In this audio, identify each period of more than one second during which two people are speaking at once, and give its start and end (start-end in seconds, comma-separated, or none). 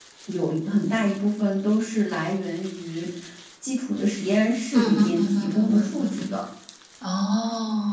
4.7-6.3